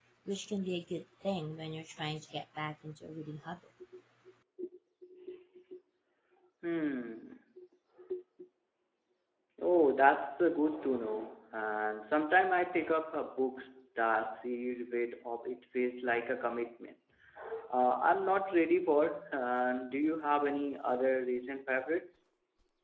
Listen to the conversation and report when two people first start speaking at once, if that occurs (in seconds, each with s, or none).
none